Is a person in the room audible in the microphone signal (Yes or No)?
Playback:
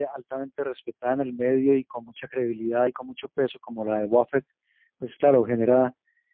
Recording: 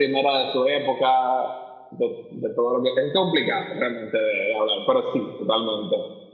Yes